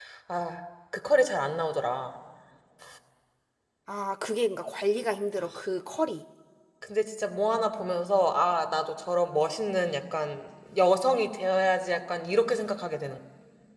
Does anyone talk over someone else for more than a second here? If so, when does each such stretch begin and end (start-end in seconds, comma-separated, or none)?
none